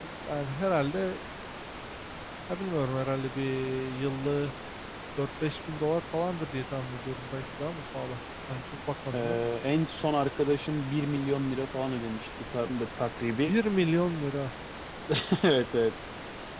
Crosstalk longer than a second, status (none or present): none